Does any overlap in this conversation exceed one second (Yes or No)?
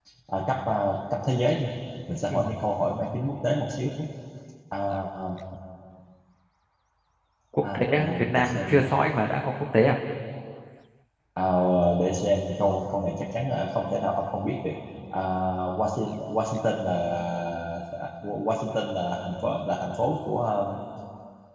Yes